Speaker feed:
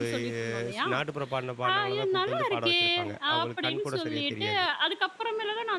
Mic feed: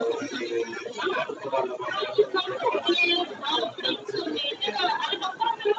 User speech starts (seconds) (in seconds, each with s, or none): none